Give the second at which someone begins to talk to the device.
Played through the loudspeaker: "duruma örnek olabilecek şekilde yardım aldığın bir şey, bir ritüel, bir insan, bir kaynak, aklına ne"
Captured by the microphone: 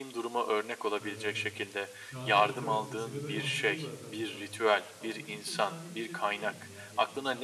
1.0 s

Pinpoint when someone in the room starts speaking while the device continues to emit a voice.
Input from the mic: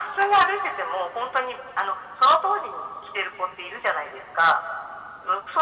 none

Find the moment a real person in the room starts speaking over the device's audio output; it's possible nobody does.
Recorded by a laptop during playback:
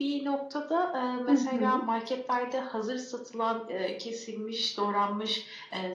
1.3 s

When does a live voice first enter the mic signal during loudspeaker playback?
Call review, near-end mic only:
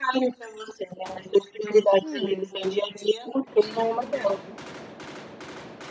2.0 s

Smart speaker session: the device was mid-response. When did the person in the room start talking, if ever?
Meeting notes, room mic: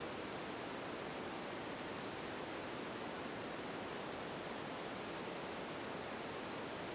none

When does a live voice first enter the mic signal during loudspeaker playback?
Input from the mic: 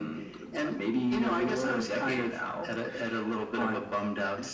none

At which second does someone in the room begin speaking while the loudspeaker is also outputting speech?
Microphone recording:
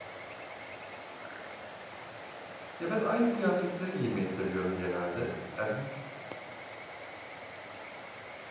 2.8 s

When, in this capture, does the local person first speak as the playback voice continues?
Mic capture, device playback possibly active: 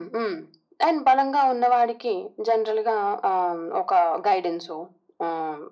none

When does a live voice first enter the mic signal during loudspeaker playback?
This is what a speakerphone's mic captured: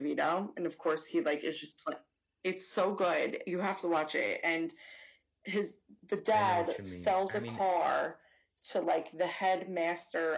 6.3 s

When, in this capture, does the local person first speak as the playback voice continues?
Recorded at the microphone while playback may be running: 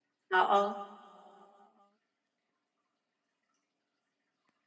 0.3 s

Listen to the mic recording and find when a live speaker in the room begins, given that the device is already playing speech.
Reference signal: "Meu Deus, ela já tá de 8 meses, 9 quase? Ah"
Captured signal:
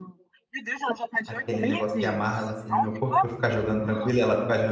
1.3 s

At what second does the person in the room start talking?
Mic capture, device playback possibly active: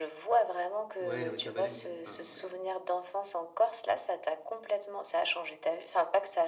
1.0 s

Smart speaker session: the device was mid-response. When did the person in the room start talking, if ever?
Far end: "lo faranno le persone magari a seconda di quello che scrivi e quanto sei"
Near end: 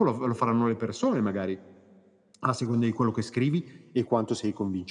none

